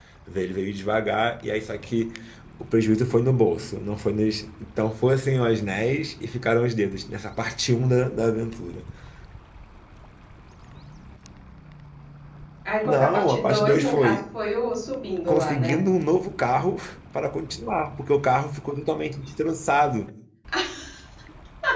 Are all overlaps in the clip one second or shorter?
No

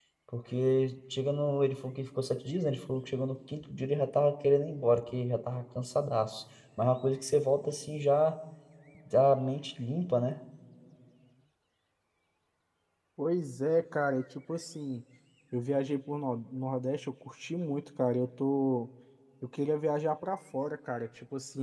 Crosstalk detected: No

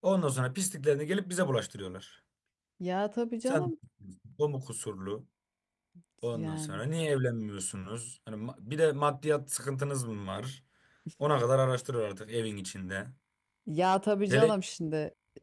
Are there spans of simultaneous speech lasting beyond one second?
No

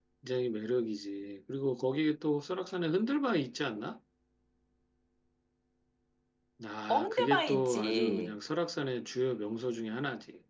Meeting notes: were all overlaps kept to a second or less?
No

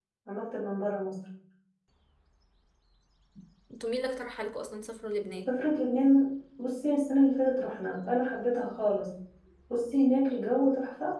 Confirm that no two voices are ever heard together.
Yes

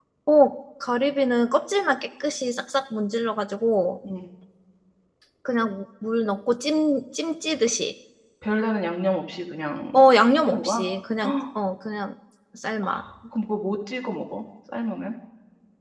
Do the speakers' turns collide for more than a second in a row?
No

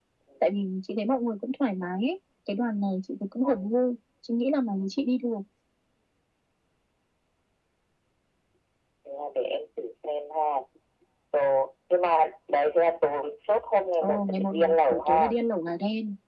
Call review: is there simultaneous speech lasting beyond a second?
Yes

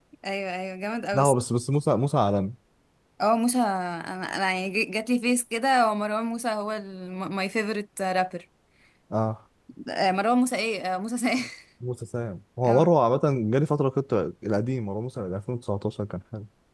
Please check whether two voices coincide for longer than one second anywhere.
No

